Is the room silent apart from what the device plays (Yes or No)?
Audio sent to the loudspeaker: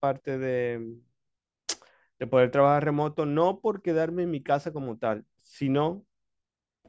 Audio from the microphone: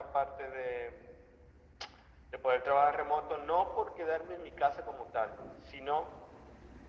Yes